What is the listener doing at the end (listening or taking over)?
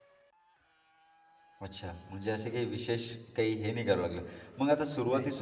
listening